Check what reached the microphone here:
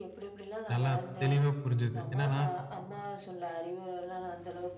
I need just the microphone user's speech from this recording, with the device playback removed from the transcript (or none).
நல்லா தெளிவா புரிஞ்சது. என்னன்னா,